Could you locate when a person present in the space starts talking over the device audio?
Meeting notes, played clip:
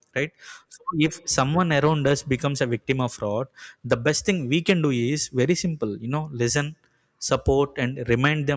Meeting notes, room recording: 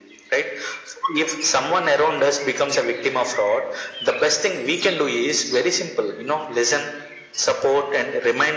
none

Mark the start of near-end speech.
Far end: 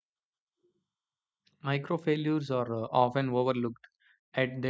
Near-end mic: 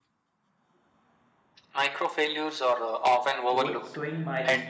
3.5 s

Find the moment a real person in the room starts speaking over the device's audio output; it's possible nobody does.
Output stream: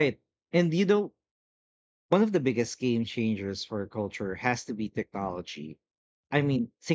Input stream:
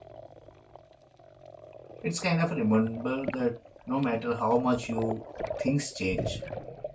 2.0 s

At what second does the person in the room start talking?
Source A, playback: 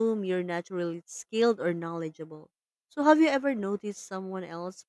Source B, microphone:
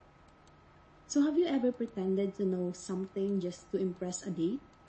1.1 s

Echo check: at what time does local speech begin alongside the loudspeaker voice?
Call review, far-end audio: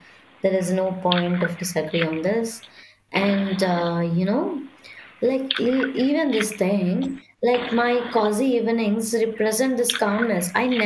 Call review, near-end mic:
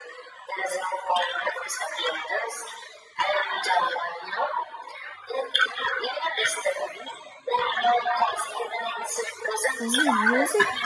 9.8 s

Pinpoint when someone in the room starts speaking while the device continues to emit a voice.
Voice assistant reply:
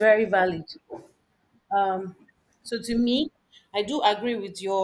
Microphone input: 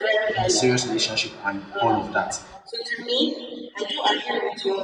0.3 s

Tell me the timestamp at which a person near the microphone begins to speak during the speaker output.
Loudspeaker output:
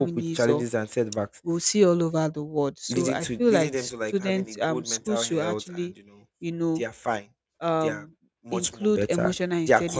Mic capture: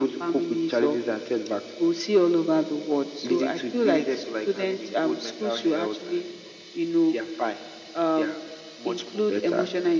none

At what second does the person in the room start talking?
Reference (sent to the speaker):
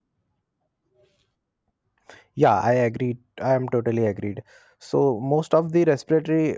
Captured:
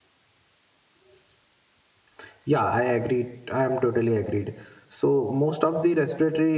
none

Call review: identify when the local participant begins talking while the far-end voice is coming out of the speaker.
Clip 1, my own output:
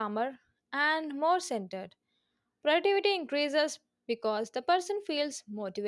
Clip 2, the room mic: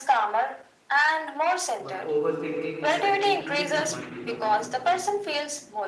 1.8 s

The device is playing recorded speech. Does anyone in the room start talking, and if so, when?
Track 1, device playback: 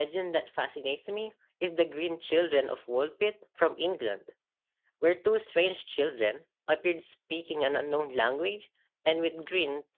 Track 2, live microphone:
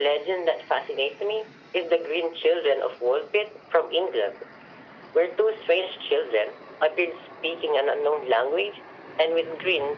none

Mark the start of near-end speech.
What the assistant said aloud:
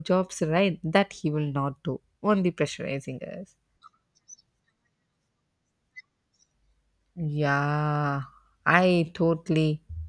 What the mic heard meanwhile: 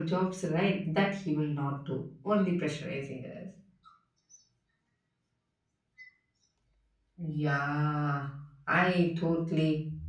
none

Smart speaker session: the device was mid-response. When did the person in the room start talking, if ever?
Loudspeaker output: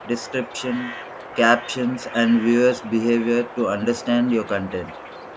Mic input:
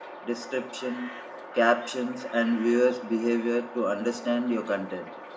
none

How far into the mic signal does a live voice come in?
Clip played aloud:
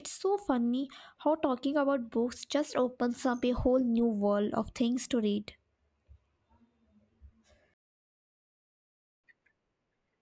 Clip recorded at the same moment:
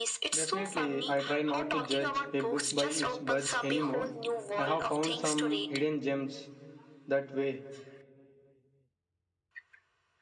0.3 s

